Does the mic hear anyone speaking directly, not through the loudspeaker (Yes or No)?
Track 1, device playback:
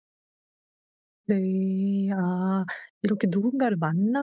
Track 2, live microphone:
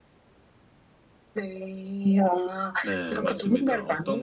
Yes